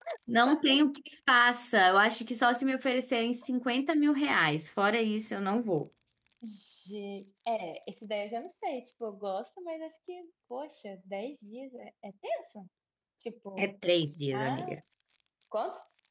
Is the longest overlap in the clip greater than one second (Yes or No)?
No